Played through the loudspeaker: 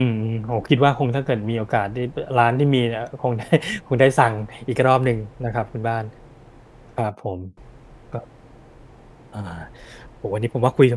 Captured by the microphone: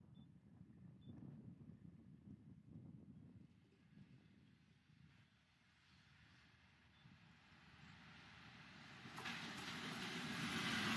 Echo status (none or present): none